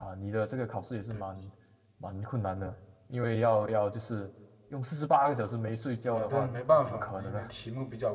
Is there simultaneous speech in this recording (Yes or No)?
Yes